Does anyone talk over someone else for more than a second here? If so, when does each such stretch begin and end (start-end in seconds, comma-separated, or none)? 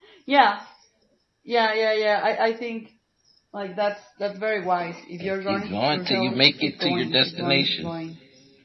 5.5-7.9